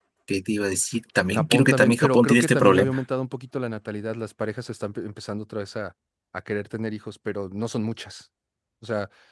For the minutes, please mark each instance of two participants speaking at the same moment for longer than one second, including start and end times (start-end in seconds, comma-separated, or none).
1.3-3.0